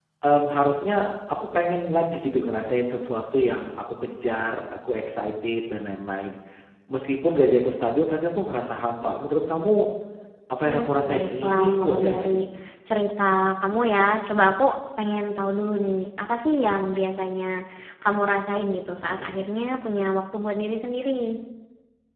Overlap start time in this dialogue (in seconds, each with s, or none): 10.6 s